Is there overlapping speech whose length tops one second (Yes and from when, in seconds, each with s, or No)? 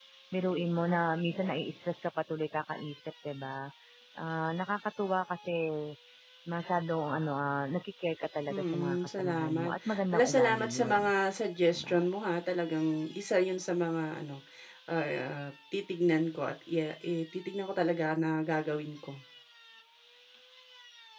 Yes, from 8.5 s